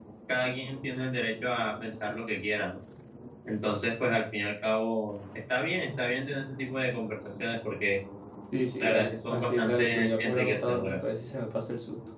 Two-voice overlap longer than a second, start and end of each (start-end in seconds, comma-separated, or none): 8.8-11.1